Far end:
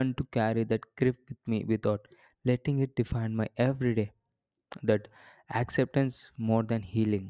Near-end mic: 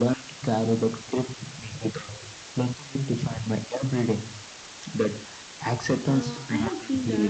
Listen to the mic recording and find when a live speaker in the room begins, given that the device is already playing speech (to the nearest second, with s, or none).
6 s